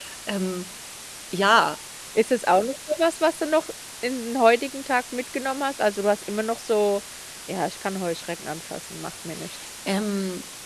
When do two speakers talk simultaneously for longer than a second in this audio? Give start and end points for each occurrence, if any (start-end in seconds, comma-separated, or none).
none